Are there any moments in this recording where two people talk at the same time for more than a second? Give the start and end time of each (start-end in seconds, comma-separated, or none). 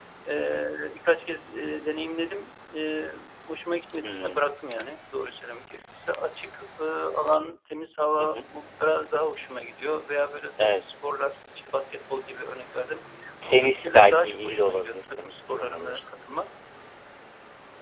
13.5-16.0